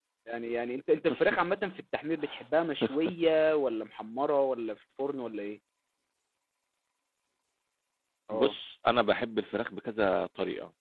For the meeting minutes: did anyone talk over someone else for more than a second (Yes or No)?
No